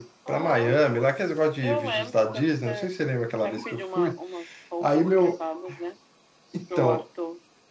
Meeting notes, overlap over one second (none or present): present